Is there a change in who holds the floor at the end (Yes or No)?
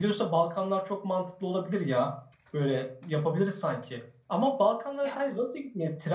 No